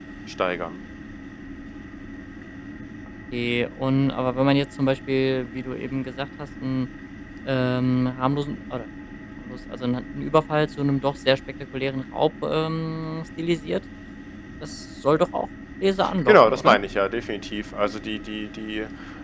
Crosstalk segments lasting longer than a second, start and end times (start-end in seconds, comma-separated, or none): none